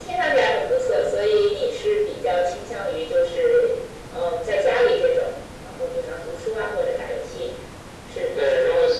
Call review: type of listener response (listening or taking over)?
taking over